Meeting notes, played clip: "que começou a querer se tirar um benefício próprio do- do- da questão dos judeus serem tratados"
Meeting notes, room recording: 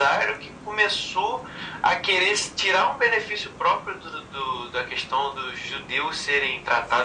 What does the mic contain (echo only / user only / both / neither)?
echo only